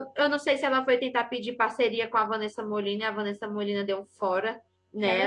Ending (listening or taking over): listening